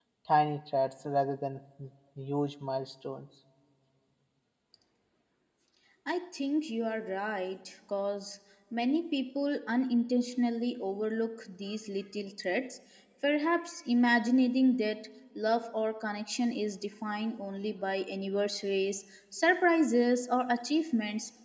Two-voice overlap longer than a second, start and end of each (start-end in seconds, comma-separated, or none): none